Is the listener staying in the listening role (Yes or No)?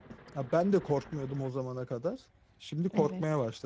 No